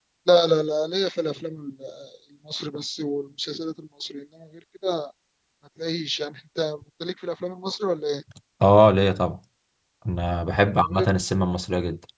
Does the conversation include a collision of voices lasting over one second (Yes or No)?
No